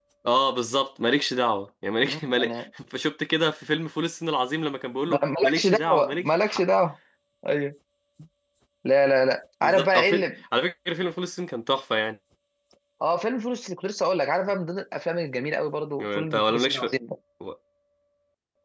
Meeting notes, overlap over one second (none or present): present